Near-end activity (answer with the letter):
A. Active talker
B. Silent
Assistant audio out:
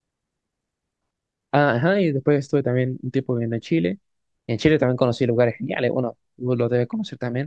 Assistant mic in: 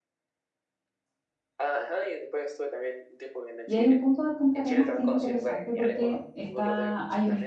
A